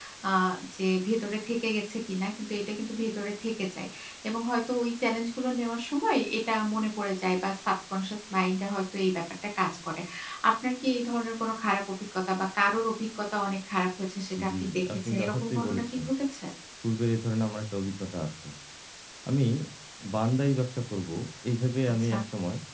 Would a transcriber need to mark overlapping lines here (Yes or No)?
Yes